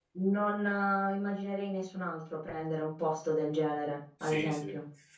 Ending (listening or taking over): taking over